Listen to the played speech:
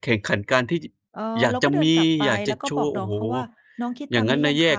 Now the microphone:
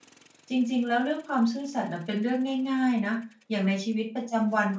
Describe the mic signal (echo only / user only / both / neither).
user only